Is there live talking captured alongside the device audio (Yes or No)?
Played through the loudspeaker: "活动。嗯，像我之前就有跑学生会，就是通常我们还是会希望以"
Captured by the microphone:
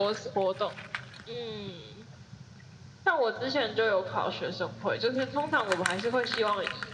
No